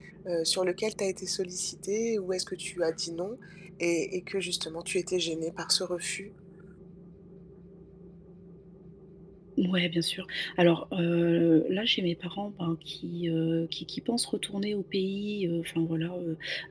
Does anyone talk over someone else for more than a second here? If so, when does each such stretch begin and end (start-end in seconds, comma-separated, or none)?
none